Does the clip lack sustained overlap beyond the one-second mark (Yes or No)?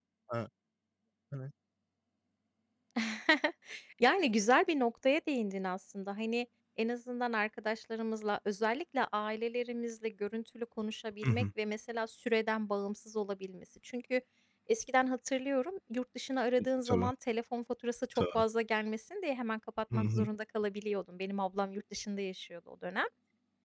Yes